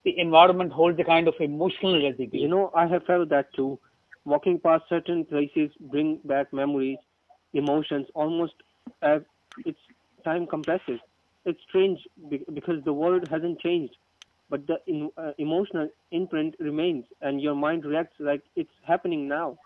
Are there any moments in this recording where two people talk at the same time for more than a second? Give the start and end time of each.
none

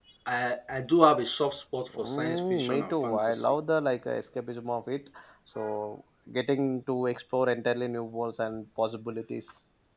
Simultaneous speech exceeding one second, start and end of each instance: 2.0-3.5

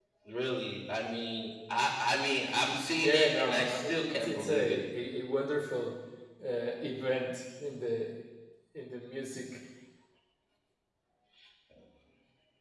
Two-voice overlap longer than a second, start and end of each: 3.0-4.8

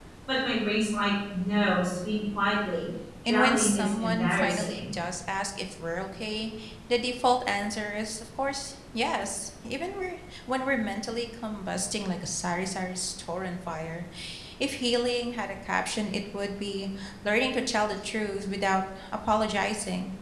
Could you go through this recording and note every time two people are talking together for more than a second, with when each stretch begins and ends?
3.3-4.8

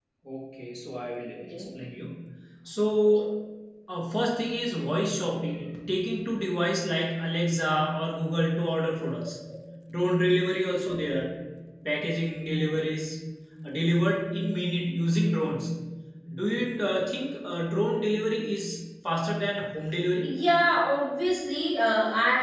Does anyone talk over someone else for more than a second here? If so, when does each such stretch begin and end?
none

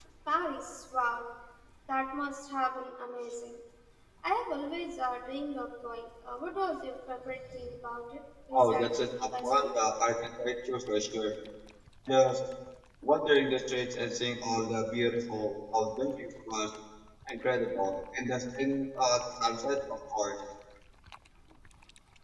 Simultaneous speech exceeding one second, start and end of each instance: 8.5-9.8

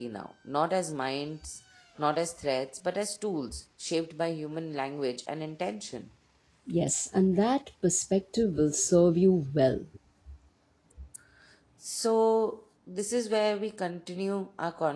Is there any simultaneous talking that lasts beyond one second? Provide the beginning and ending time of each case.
none

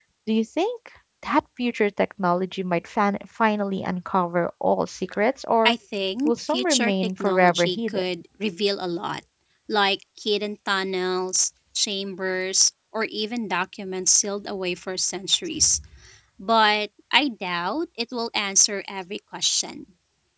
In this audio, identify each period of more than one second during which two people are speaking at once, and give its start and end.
6.2-8.0

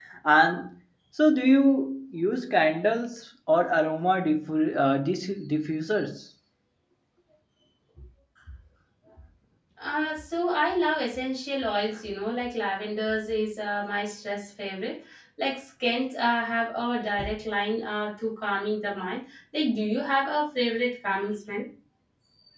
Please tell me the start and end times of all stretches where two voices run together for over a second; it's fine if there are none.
none

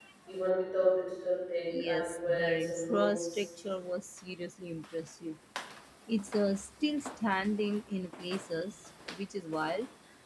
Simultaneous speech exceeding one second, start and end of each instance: 1.8-3.4

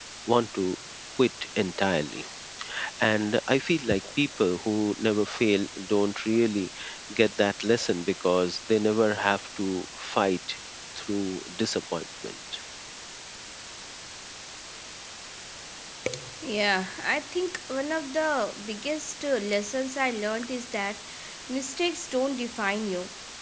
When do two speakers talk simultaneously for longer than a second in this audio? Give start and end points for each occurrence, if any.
none

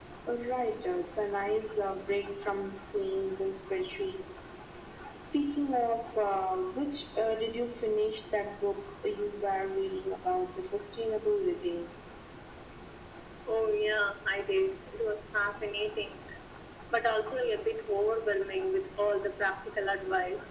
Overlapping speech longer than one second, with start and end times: none

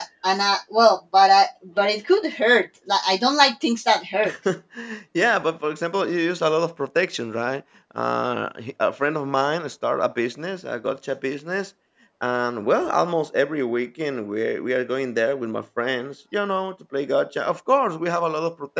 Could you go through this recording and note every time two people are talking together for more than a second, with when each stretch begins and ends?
none

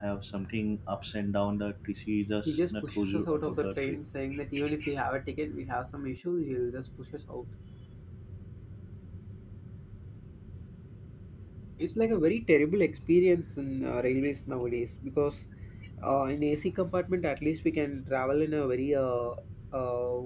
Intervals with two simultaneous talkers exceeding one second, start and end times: 2.5-4.0

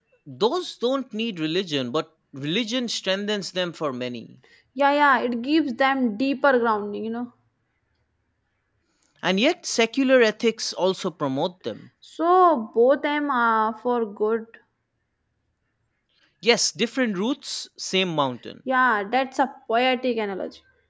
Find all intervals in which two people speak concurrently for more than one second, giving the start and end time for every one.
none

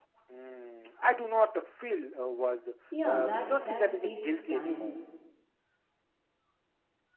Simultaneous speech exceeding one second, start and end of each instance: 3.0-4.9

